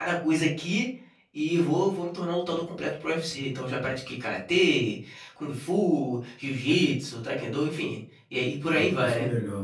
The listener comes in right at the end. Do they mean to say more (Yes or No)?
Yes